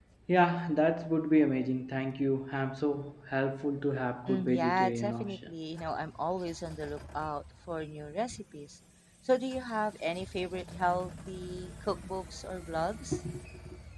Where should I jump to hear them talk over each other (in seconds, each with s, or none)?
4.3 s